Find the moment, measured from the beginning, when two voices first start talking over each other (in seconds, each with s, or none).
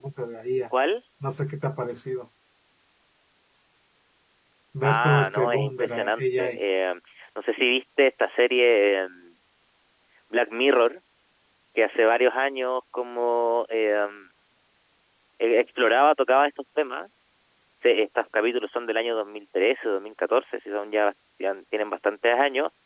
4.8 s